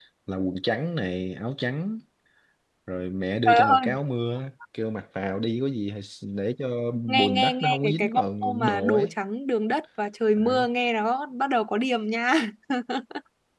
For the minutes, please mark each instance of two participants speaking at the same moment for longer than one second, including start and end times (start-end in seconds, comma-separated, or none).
7.1-9.1